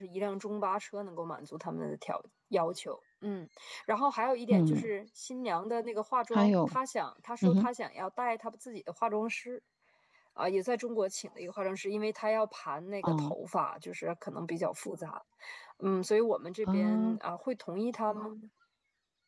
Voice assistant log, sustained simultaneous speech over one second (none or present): none